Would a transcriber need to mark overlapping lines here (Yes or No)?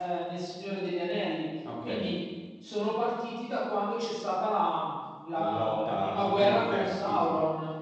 Yes